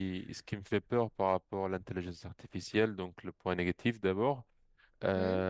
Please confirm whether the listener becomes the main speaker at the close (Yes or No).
No